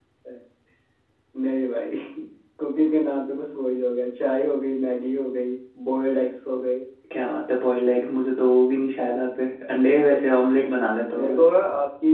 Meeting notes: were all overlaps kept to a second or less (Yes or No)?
Yes